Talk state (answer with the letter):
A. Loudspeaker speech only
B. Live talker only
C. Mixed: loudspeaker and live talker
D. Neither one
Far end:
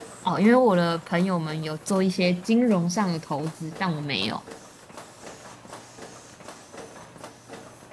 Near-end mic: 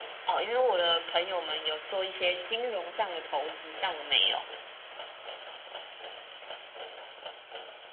A